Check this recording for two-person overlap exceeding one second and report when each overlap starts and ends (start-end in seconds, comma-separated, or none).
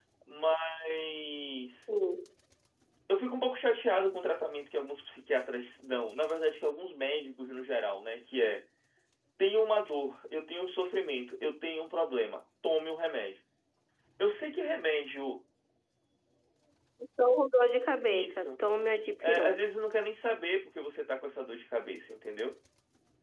none